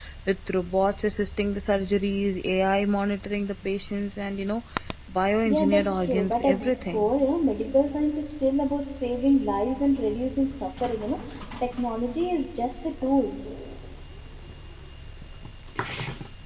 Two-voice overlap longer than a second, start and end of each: 5.5-7.1

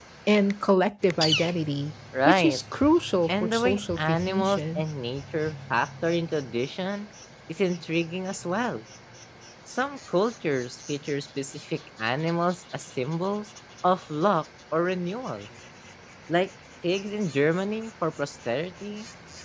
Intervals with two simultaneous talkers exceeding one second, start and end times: 3.3-4.8

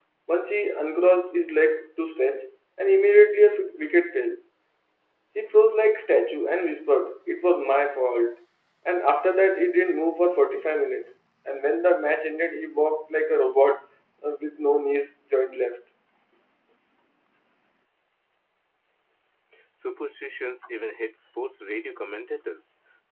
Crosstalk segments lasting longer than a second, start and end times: none

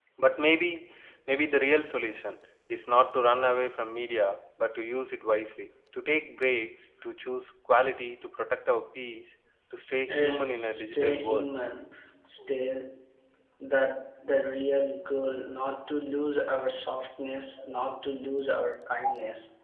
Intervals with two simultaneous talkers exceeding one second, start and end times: 10.1-11.5

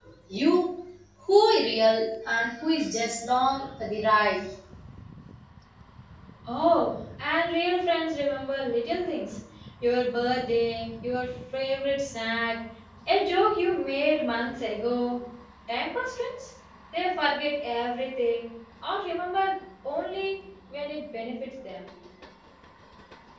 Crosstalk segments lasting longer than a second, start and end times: none

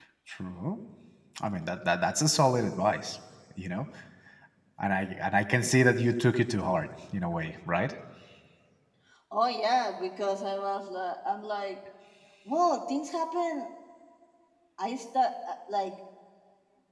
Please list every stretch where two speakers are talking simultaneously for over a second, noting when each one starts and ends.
none

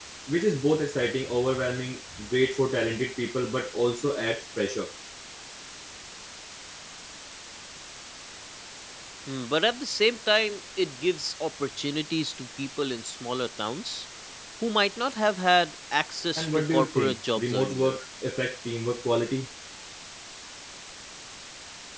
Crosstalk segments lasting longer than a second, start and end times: 16.4-18.0

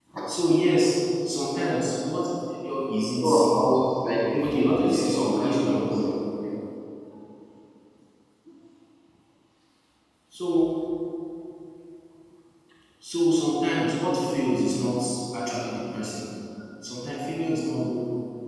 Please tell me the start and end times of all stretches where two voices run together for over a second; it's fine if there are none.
4.4-6.1

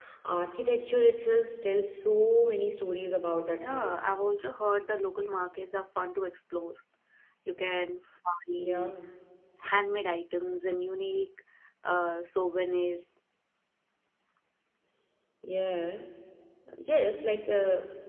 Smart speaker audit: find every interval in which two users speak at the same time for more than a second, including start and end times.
none

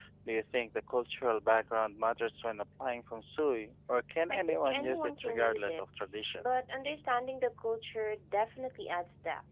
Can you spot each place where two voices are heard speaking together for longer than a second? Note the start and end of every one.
4.3-5.8

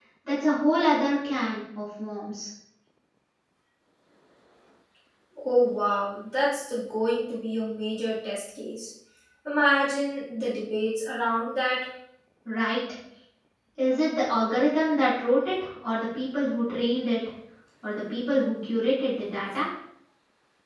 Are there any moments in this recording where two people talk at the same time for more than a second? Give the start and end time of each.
none

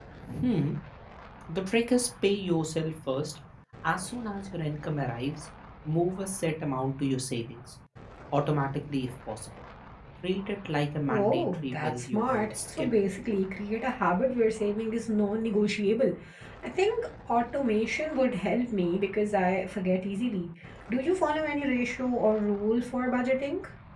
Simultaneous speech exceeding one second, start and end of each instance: 11.1-12.9

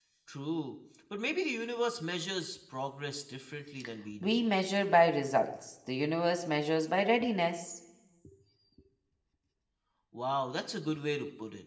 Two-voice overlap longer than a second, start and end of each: none

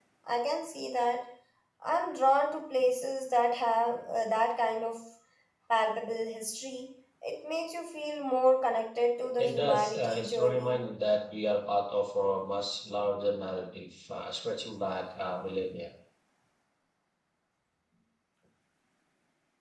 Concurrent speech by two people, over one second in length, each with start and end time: 9.4-10.8

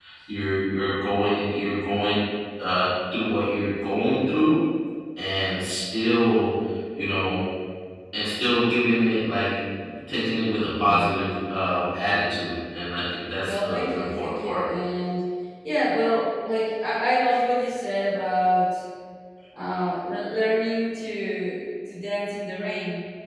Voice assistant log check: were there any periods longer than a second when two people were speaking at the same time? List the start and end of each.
13.4-14.7

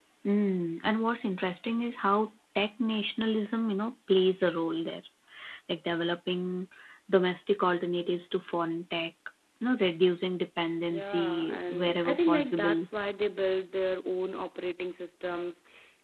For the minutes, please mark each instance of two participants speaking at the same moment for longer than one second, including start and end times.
10.9-12.9

